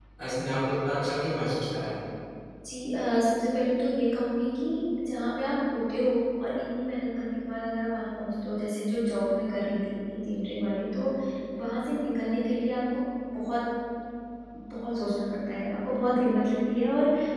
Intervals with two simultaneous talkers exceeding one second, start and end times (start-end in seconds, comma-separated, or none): none